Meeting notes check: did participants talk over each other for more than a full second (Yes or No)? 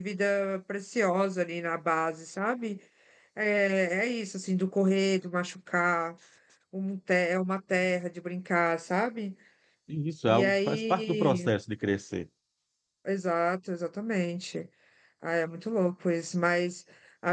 Yes